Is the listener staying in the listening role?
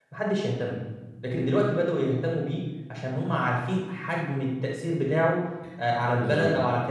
No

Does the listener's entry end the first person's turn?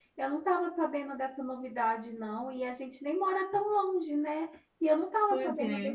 No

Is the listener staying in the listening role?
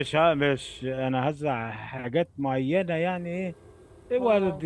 Yes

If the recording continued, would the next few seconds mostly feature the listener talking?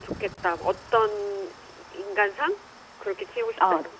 Yes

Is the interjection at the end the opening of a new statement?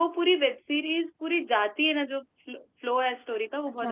Yes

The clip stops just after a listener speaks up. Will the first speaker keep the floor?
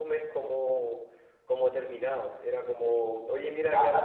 Yes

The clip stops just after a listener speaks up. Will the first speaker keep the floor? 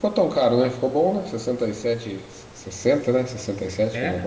No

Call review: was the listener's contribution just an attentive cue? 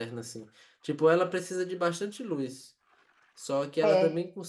Yes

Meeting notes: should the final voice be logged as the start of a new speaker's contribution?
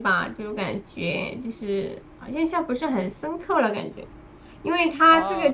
No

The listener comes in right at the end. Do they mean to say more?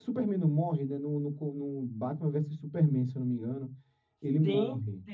Yes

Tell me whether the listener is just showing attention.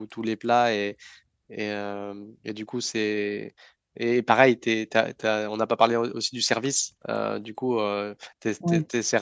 Yes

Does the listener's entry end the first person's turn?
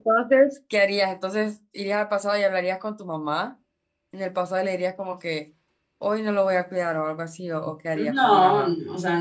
Yes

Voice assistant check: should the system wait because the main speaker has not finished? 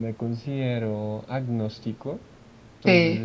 Yes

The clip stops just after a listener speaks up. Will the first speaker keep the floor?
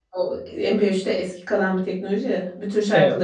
Yes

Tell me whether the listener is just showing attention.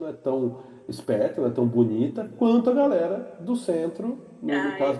No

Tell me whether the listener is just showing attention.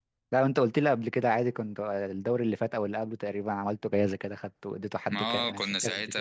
No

